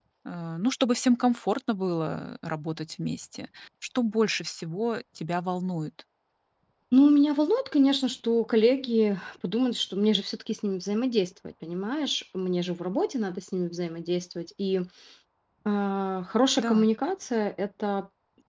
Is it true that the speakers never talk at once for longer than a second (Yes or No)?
Yes